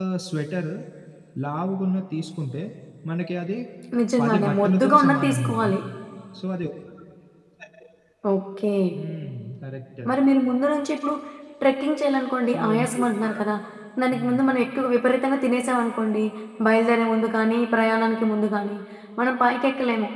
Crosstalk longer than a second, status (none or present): present